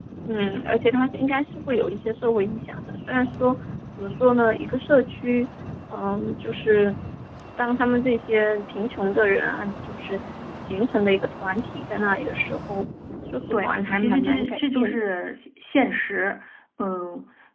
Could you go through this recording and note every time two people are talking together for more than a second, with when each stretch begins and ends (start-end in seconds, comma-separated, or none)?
13.5-15.0